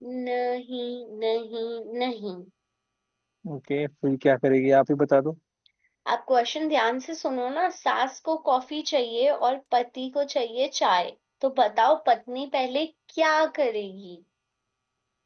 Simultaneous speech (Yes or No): No